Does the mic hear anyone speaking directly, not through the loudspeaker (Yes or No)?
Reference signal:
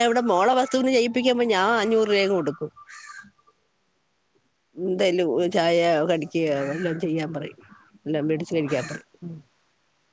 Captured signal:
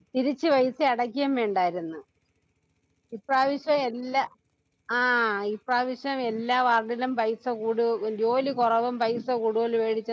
Yes